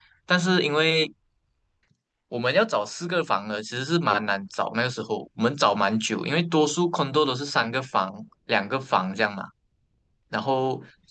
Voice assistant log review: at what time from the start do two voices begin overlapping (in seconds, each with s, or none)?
none